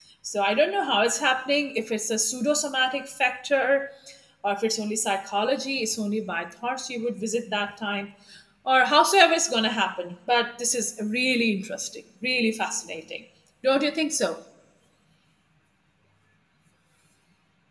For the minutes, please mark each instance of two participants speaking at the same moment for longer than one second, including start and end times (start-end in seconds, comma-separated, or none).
none